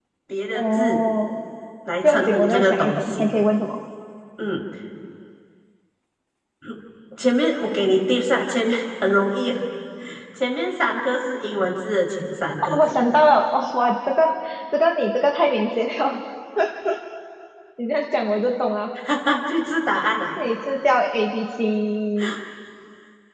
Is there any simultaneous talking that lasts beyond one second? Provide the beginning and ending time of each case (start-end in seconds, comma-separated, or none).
2.0-3.3